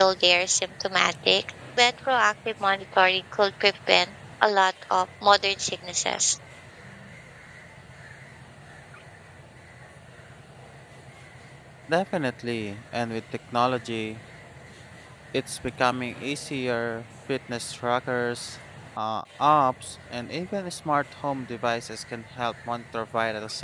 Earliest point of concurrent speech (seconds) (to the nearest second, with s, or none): none